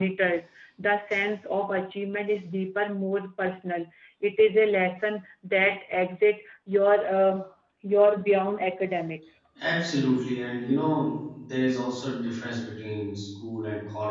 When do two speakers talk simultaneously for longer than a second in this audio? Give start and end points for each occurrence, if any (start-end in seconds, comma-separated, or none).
none